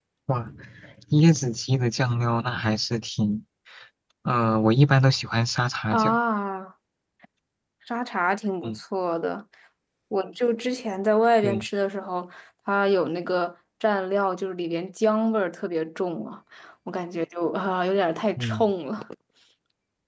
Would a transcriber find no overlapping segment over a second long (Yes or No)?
Yes